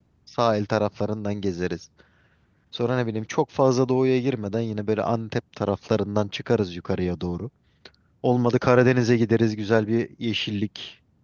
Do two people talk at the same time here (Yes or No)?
No